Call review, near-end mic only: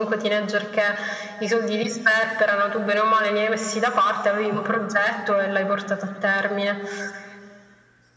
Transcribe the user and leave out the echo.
none

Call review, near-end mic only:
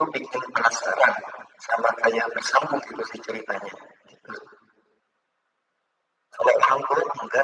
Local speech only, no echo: none

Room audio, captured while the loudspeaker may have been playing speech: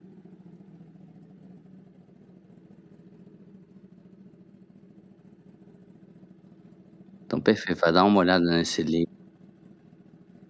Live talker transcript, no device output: Então perfeito. Vai dar uma olhada nesse Lidl,

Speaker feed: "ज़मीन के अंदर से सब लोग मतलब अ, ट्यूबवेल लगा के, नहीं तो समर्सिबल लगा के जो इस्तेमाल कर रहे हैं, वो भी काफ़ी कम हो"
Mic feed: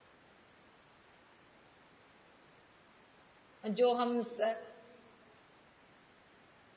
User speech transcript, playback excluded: अ, जो हम स

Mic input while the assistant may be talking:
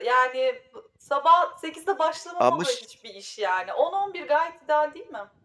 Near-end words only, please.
Ama ş

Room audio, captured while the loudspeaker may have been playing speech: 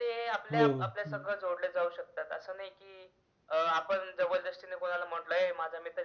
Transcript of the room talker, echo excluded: हो, हो, हं.

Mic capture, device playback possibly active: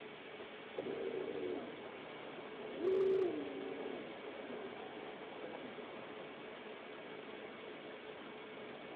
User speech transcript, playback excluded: none

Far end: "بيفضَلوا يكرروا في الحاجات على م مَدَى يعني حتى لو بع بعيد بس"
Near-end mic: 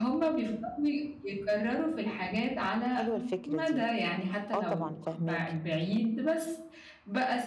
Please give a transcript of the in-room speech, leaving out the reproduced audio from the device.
حلوة الفكرة دي. آه طبعًا، فاهماكِ.

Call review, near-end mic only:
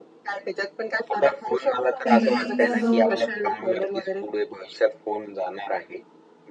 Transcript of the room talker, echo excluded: टीव्हीचा जो

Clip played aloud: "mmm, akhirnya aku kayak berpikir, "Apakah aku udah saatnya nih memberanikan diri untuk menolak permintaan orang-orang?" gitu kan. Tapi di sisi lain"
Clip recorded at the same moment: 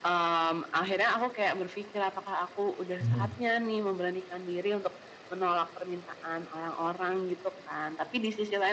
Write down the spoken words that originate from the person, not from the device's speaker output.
Mhm.

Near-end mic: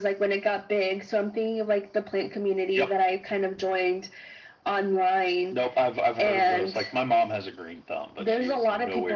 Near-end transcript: none

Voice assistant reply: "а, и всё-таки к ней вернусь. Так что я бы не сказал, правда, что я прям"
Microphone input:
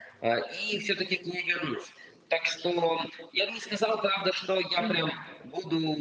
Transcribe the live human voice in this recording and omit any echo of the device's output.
Мгм.

